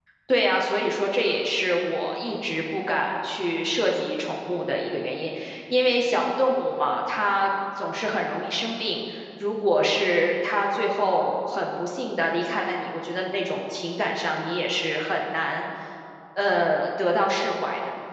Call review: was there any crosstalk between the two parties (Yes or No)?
No